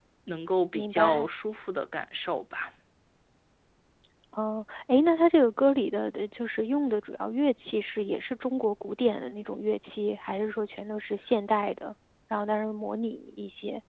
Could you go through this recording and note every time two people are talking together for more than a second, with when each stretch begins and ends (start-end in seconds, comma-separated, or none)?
none